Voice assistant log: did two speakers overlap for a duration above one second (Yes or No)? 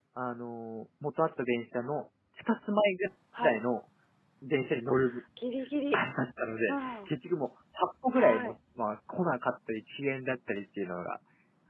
No